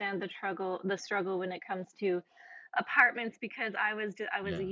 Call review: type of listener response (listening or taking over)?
listening